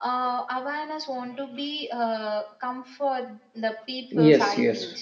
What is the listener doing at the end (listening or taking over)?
taking over